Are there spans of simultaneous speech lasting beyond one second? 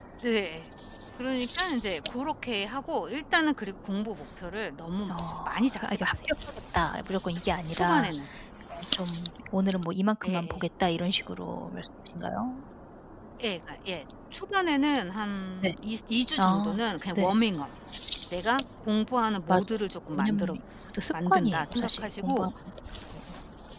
Yes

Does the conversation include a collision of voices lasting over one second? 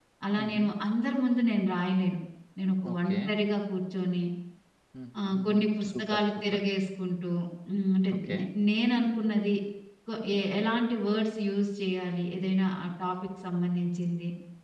Yes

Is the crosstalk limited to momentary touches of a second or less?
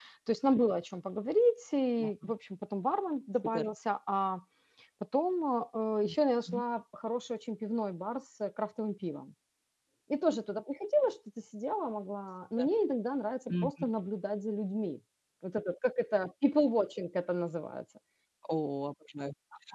Yes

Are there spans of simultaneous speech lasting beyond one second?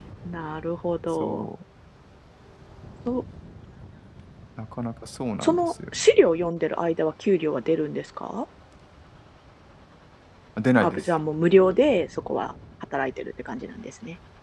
No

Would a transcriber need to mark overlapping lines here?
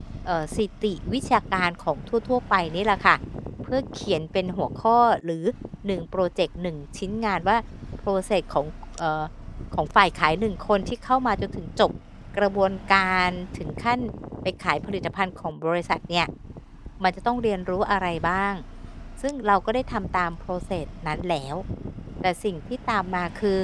No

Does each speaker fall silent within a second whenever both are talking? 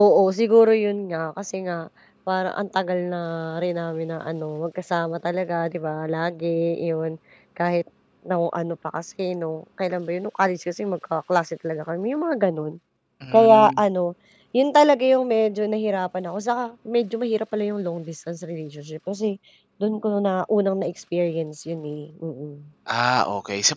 Yes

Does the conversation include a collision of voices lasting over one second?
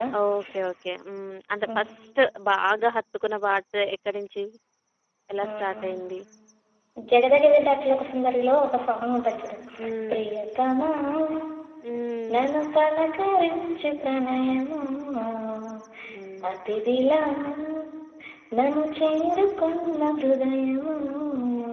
No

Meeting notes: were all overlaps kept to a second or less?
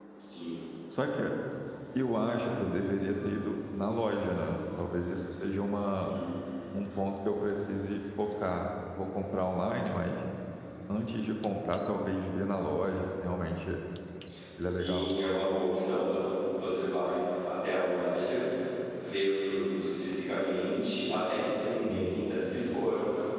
Yes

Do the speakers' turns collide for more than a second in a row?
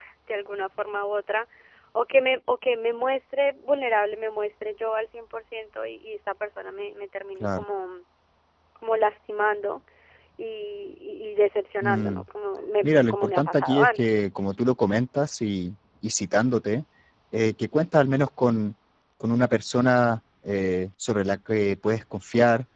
Yes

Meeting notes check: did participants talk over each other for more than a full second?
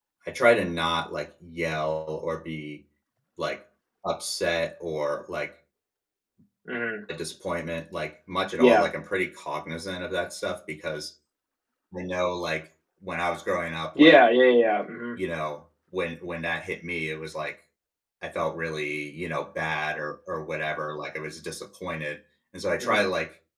No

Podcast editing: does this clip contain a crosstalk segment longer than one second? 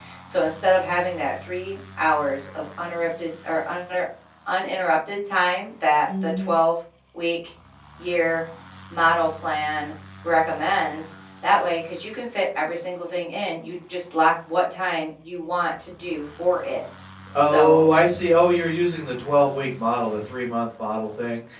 No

